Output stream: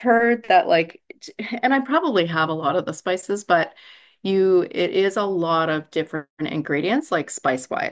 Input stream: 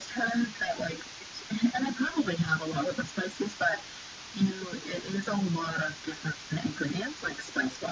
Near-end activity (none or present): none